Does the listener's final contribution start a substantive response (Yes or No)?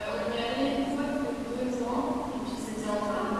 No